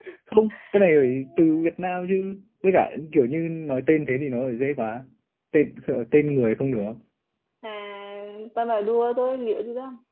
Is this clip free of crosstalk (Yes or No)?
Yes